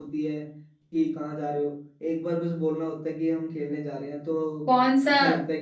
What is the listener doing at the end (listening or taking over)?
taking over